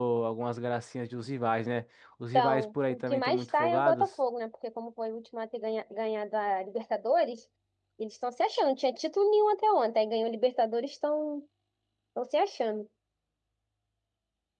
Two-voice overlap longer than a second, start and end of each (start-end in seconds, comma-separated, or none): 2.3-4.1